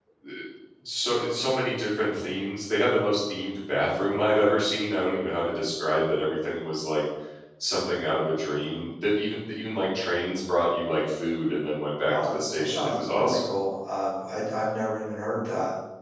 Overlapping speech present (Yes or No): Yes